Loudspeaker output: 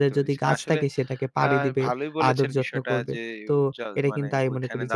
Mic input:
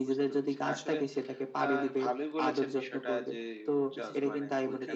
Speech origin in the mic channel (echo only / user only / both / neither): both